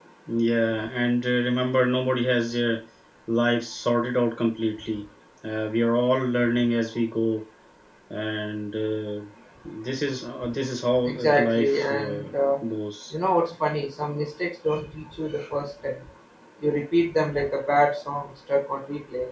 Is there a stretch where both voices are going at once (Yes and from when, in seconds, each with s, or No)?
Yes, from 11.1 s